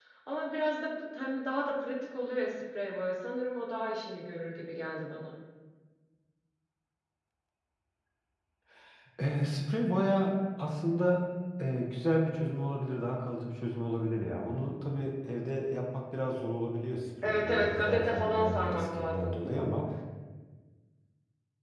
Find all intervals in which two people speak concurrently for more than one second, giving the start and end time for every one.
17.2-19.3

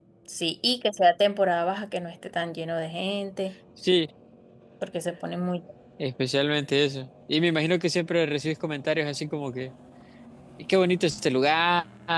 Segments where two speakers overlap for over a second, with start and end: none

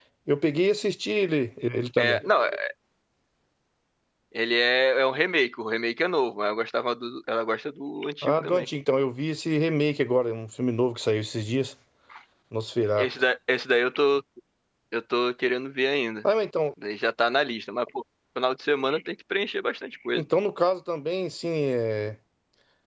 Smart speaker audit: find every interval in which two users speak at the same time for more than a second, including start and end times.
none

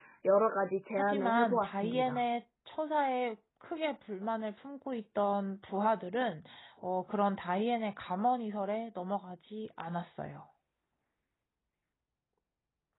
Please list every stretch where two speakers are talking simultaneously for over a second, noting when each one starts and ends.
1.0-2.2

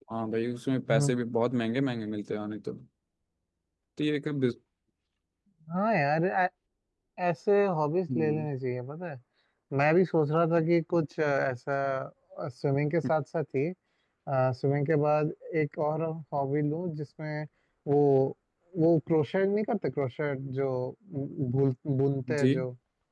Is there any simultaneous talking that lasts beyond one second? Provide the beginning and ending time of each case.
none

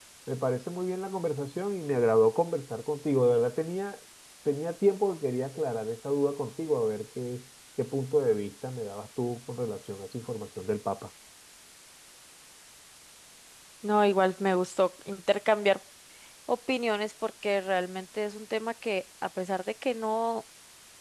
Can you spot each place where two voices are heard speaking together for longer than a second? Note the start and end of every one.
none

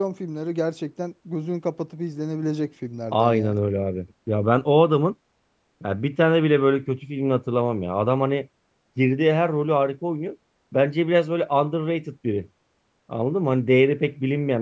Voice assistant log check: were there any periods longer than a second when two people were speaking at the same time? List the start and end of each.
none

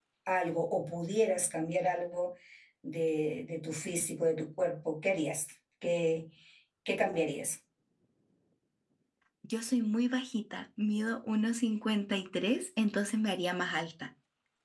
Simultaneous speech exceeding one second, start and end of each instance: none

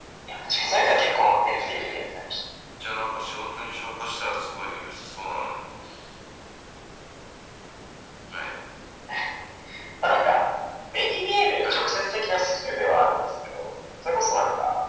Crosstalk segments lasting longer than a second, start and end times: 0.6-2.0

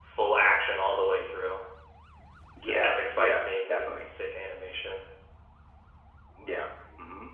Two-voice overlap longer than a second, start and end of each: 2.7-4.1

